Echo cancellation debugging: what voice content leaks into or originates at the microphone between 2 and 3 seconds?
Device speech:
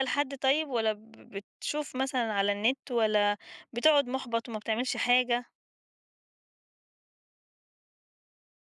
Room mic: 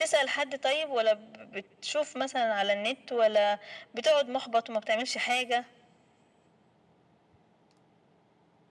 echo only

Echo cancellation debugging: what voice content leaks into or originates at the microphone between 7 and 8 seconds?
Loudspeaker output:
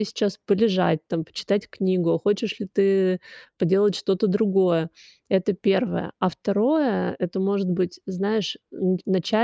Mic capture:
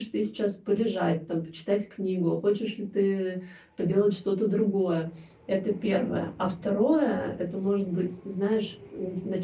both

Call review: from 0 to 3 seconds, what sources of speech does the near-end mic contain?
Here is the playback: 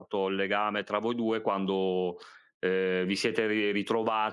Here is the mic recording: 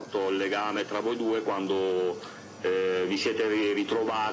echo only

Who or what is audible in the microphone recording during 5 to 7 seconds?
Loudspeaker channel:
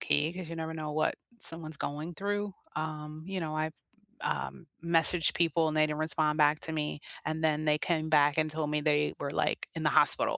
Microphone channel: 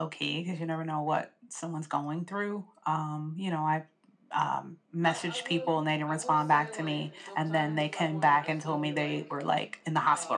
both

